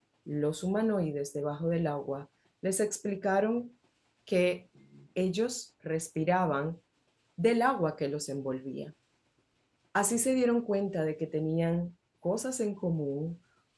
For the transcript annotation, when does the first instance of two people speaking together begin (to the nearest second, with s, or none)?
none